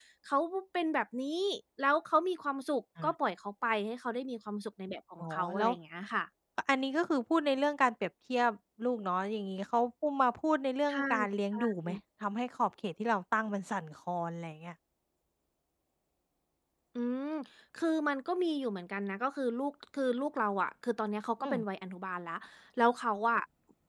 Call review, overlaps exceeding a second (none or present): none